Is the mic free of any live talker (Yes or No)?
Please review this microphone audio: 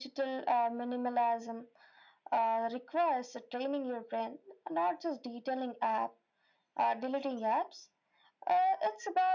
Yes